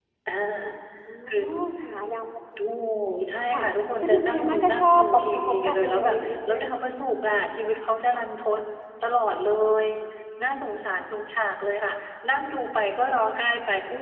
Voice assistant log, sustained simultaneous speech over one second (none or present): present